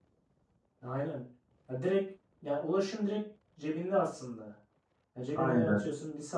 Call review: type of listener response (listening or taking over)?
listening